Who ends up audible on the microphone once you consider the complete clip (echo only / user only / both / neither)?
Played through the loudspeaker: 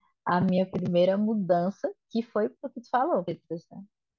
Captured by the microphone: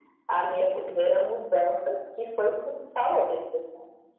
echo only